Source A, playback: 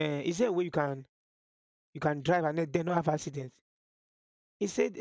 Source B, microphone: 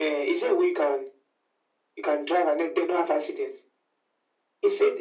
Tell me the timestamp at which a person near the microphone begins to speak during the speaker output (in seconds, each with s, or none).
none